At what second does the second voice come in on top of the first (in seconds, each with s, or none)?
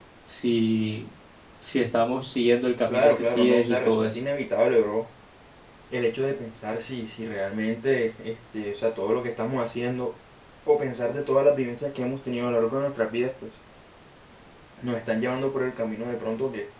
2.9 s